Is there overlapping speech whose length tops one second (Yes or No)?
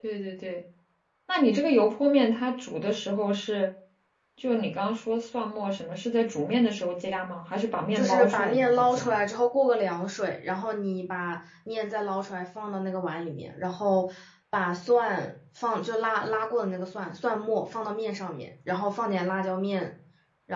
Yes